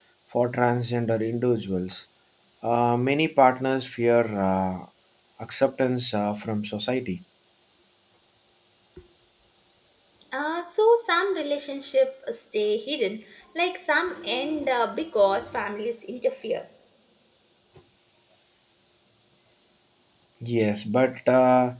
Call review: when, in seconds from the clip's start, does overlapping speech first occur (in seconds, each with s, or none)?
none